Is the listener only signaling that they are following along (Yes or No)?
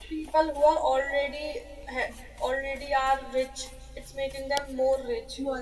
No